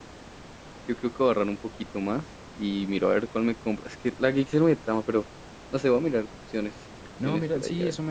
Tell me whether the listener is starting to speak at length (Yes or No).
Yes